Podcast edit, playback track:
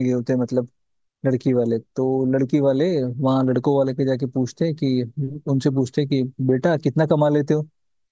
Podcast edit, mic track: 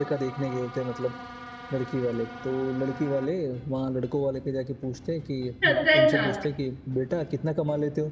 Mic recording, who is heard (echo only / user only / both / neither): both